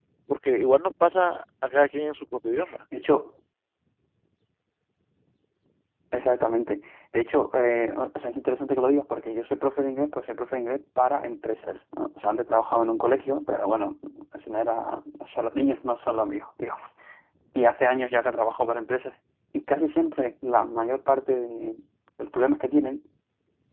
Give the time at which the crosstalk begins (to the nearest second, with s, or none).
none